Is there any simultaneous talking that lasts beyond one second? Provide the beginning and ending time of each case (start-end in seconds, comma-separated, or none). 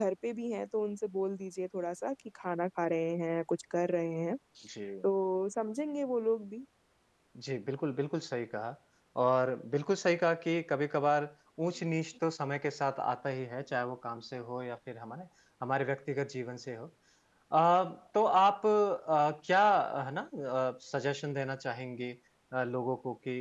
none